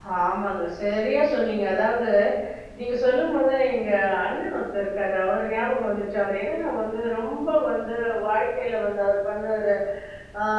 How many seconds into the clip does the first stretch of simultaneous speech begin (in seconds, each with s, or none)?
none